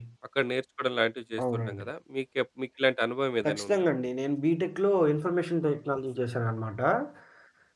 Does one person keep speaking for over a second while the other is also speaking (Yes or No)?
No